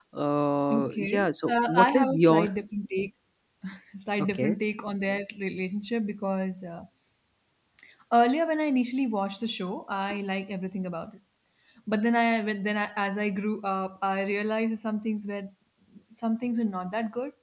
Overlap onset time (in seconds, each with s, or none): 0.7 s